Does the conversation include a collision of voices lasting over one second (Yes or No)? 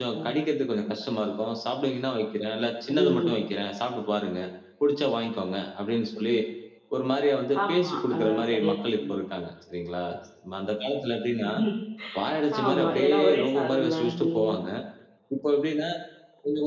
Yes